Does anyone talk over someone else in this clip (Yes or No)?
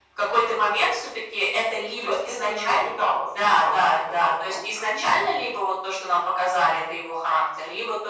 Yes